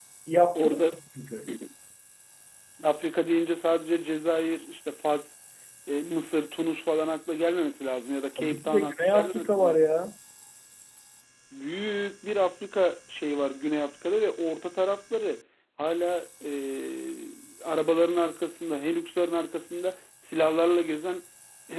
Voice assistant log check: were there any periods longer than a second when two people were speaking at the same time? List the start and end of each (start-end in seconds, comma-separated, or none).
8.4-9.8